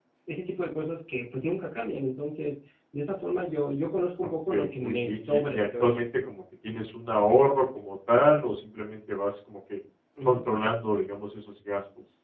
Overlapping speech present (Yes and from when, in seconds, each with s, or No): Yes, from 4.2 s